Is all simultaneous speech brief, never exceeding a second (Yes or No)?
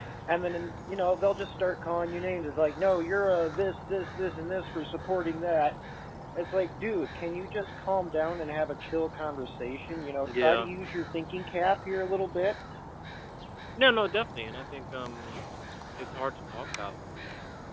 Yes